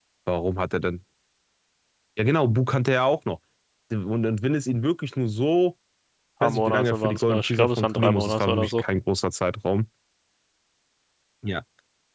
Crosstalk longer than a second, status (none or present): present